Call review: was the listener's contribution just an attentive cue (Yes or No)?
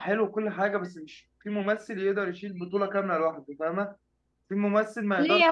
No